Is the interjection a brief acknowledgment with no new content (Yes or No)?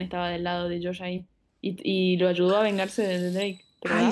No